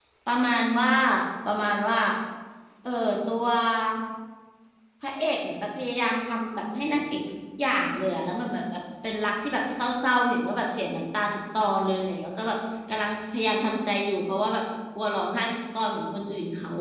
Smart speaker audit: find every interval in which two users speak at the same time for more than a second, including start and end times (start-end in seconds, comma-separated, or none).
none